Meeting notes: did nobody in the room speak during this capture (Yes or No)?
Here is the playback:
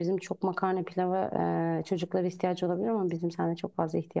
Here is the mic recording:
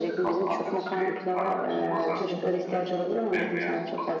No